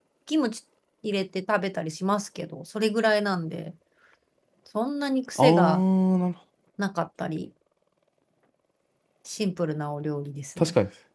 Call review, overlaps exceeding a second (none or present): none